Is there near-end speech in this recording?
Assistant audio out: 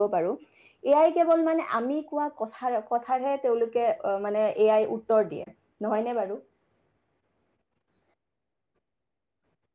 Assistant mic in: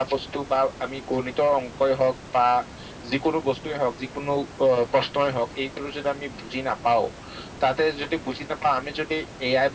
Yes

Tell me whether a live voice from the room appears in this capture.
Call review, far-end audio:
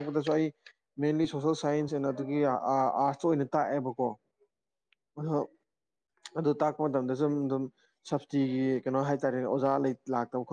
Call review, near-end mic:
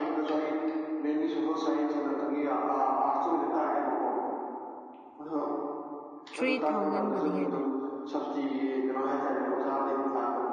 Yes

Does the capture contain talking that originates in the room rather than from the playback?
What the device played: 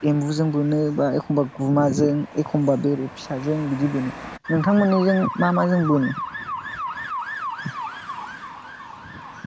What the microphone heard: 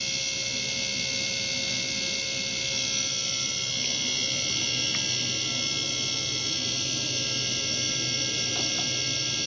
No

